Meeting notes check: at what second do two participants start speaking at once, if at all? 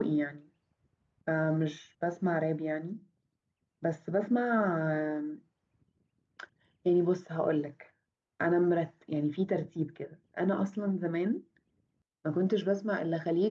none

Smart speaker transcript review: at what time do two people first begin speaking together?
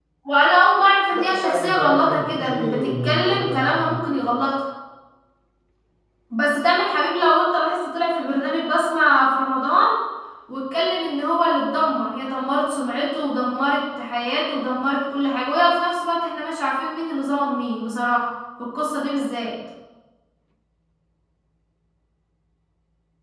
1.1 s

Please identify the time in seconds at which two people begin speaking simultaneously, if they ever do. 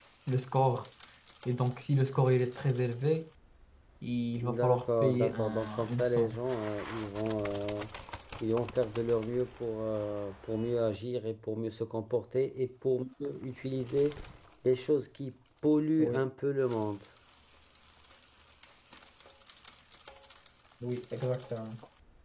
4.4 s

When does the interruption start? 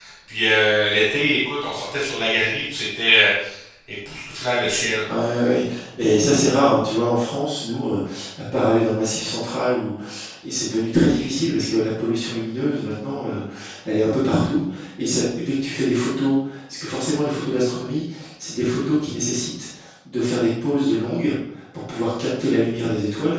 none

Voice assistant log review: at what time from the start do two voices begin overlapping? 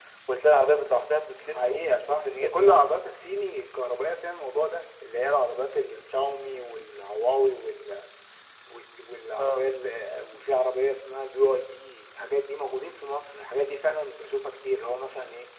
1.5 s

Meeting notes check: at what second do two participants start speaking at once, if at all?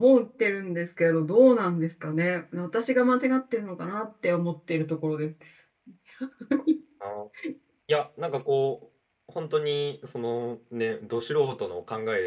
none

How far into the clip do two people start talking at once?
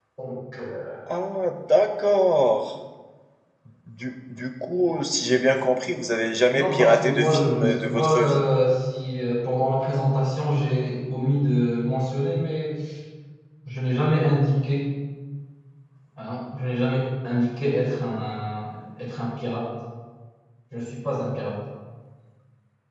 6.5 s

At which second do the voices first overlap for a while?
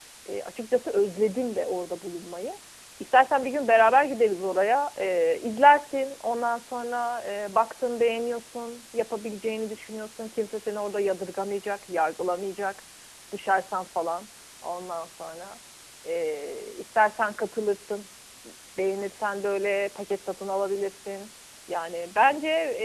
none

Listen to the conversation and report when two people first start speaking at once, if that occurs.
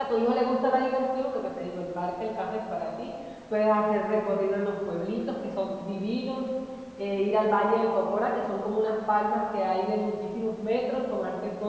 none

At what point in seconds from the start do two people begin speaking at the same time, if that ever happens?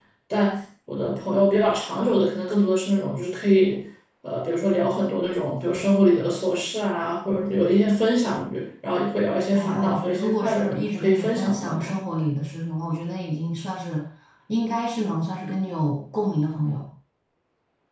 9.5 s

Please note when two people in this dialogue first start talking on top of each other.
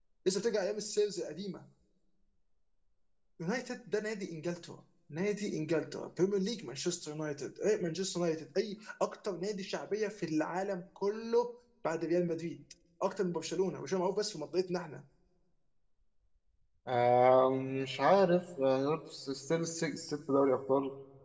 none

